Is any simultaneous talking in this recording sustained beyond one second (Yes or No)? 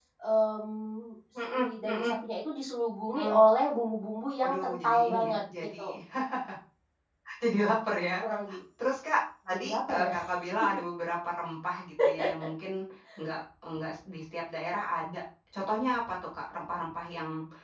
Yes